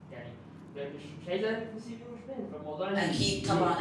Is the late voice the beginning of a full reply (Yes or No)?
Yes